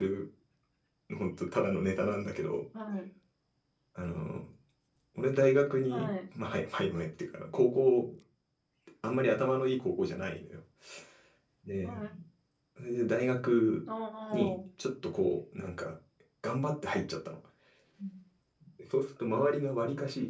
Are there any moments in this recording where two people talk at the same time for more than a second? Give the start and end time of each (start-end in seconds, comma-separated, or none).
none